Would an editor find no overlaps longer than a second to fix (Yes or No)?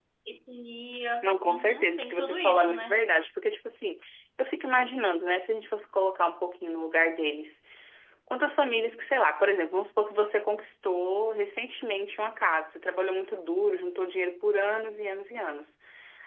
No